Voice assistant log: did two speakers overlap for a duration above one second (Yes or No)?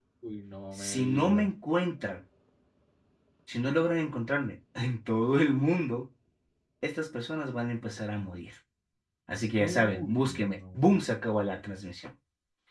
Yes